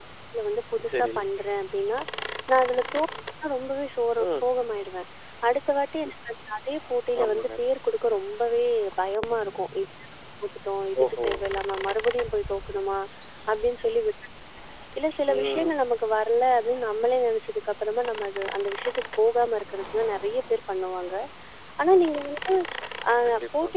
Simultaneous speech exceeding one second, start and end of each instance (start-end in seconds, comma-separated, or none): none